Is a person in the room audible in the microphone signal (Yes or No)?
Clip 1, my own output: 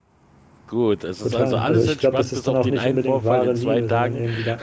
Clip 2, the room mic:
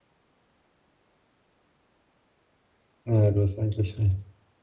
Yes